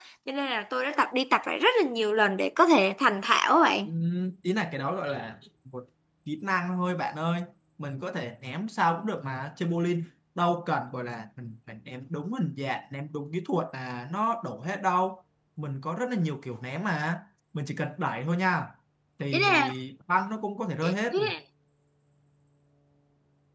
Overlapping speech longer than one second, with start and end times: none

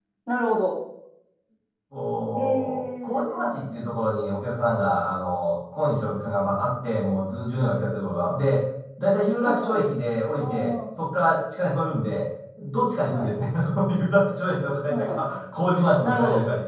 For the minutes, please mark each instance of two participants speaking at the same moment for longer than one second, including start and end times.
2.4-3.6

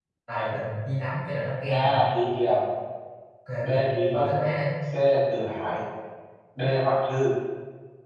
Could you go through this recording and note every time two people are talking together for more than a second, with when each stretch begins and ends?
none

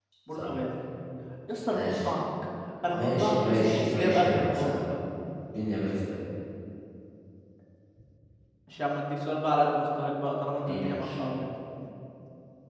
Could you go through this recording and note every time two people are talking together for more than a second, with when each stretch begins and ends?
2.9-4.8

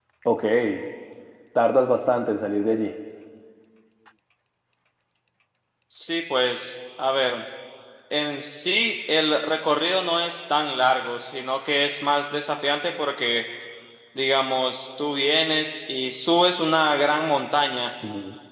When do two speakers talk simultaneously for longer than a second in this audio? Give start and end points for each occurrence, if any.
none

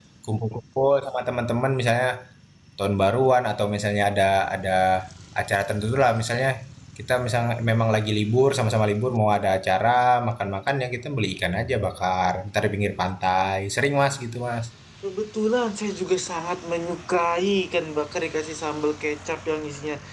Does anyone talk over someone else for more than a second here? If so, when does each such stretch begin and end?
none

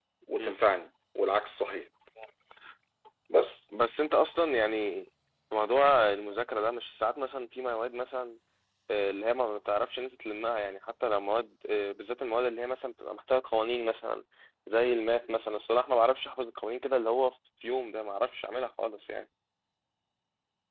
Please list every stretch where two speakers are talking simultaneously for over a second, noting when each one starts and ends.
none

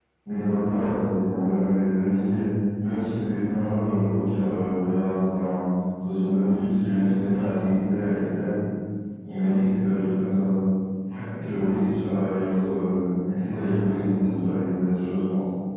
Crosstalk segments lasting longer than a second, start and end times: 13.5-14.7

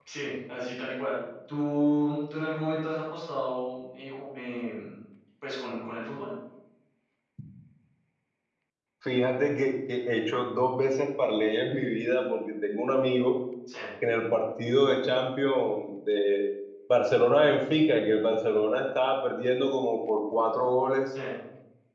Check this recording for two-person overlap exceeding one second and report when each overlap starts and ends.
none

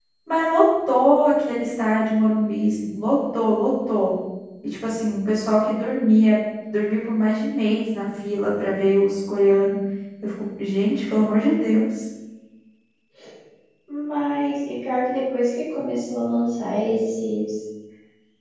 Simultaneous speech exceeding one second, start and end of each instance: none

